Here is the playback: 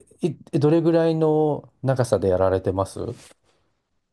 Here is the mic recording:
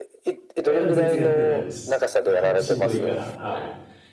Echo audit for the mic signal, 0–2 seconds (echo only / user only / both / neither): both